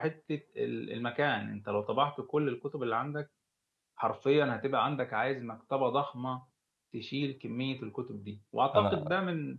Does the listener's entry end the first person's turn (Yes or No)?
No